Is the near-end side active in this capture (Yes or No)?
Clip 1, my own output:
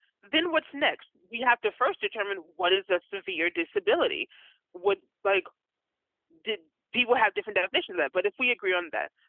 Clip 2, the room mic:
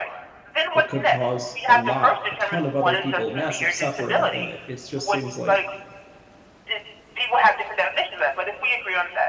Yes